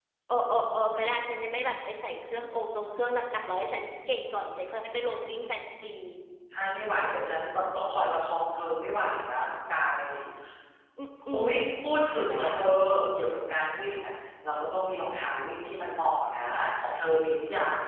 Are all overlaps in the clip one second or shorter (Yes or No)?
Yes